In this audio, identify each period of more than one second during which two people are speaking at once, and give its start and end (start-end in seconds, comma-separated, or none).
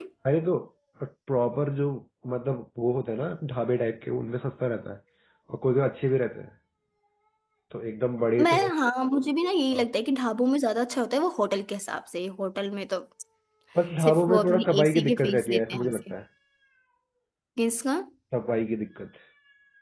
14.0-16.0